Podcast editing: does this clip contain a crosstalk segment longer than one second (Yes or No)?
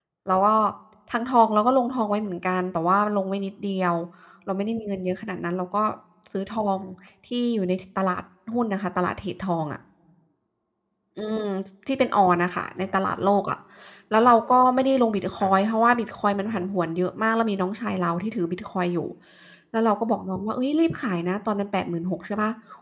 No